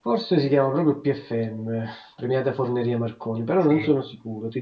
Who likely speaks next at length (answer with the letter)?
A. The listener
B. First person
B